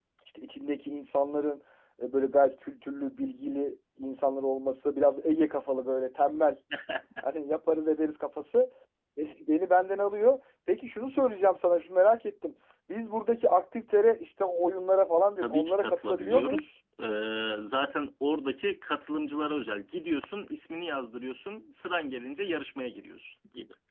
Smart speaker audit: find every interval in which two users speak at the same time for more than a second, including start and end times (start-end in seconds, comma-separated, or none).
15.4-16.6